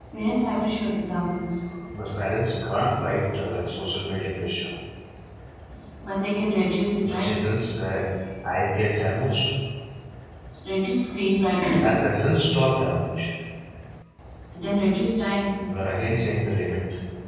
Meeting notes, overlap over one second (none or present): none